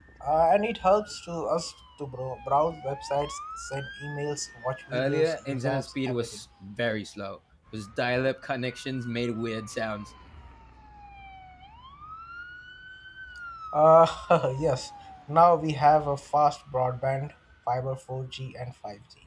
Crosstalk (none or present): present